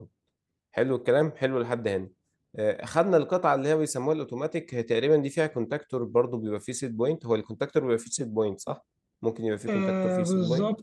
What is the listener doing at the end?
taking over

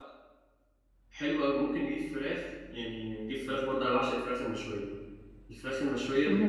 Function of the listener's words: listening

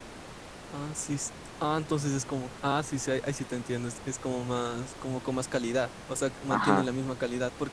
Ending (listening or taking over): listening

